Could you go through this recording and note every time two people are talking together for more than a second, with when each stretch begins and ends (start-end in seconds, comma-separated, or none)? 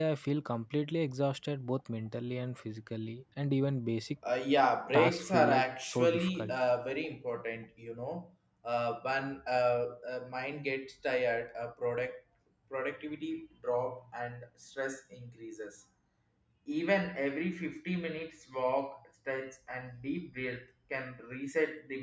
4.9-6.5